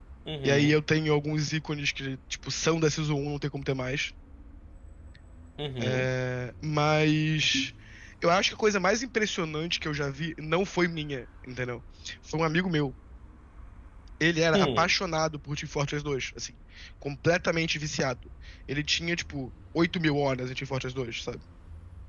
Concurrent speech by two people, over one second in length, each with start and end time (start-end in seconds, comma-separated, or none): none